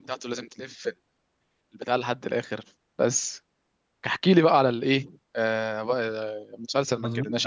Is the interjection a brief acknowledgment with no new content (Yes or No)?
No